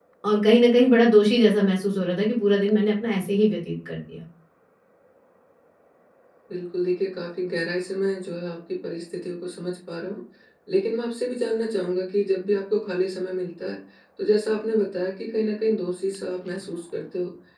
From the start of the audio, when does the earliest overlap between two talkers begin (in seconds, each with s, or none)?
none